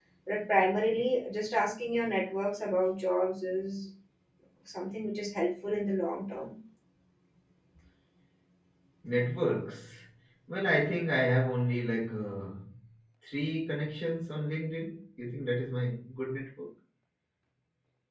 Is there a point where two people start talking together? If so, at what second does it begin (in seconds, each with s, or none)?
none